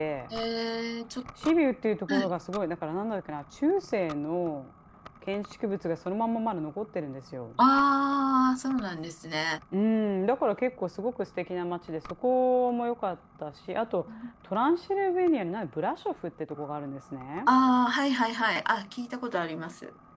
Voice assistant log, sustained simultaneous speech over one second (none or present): none